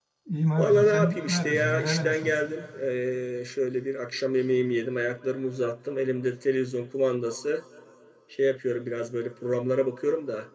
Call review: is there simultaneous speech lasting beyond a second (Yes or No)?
Yes